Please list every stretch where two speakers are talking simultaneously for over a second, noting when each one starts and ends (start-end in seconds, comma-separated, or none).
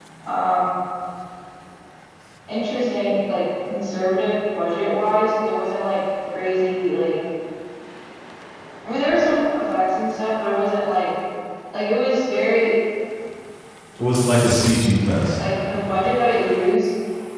none